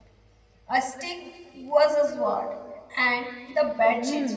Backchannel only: No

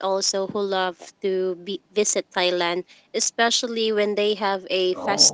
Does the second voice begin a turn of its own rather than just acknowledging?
No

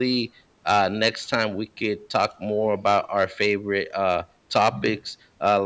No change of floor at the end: Yes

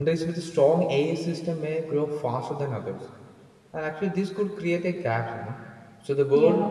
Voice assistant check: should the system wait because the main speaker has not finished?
Yes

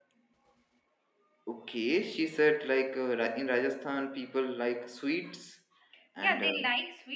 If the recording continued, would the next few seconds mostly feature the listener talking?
Yes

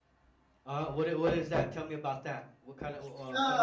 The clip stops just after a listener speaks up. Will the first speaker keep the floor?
No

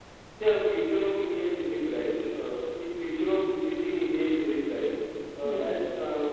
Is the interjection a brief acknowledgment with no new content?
Yes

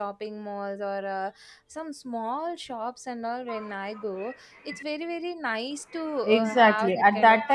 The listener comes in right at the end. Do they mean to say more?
Yes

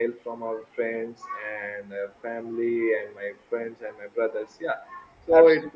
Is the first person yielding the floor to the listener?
No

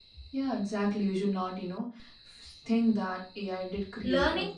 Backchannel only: No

